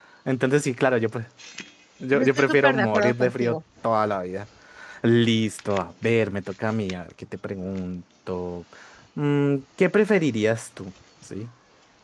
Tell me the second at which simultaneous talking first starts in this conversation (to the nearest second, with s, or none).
2 s